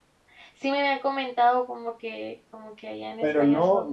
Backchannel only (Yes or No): No